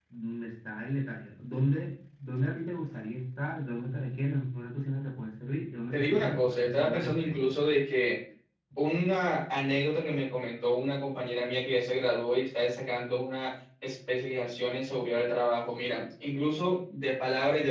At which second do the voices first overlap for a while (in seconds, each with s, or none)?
5.9 s